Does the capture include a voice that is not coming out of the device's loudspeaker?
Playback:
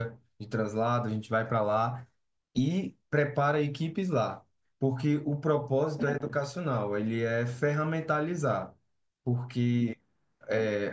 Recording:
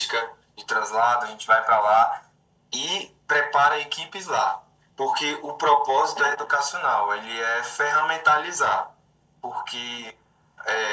No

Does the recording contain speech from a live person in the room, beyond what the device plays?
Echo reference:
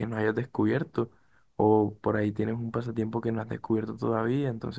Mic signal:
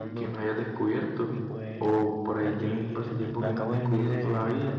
Yes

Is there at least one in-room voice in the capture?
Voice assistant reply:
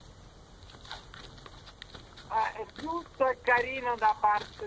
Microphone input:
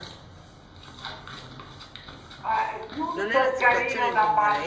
Yes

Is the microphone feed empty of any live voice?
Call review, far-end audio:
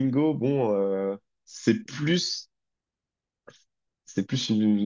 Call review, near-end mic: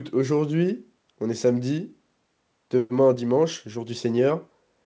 No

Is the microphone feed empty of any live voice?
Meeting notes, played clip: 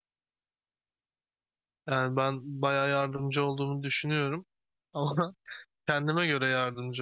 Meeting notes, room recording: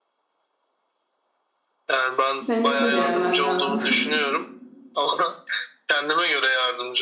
No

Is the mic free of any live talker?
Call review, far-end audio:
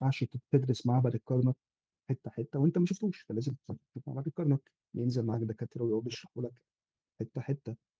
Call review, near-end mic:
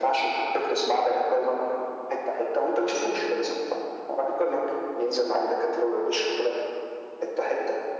Yes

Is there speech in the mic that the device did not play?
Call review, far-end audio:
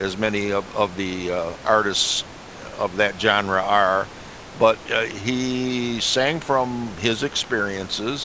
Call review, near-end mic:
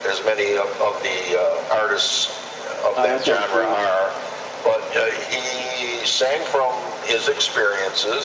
Yes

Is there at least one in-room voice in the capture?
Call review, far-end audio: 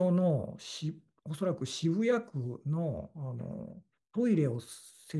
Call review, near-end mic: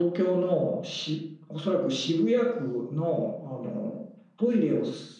No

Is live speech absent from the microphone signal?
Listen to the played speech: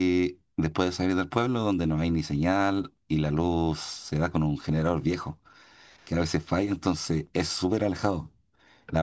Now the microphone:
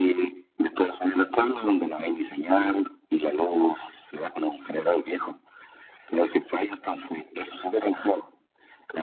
Yes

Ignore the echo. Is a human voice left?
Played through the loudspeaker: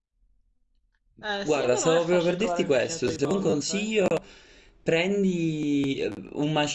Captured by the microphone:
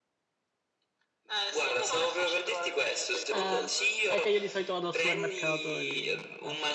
Yes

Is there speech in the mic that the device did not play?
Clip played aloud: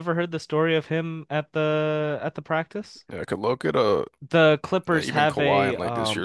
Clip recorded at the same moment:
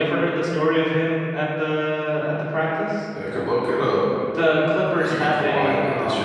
No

